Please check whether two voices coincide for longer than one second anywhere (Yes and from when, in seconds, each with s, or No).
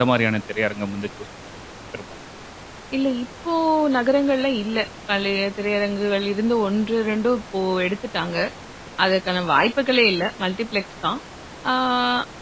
No